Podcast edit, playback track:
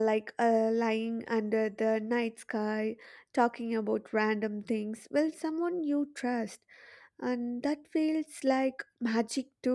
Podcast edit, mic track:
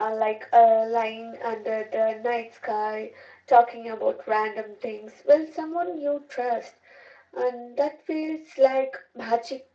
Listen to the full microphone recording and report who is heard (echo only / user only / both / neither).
echo only